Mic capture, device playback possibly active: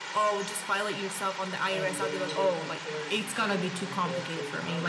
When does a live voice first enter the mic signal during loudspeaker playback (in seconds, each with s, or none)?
1.7 s